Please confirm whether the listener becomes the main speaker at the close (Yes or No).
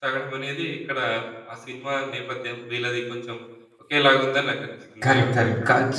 Yes